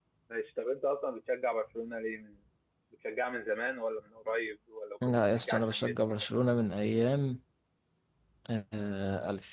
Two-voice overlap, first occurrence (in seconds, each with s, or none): 5.0 s